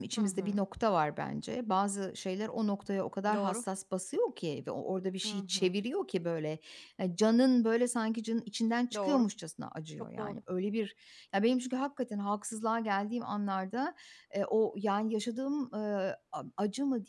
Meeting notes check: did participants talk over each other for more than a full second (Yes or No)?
No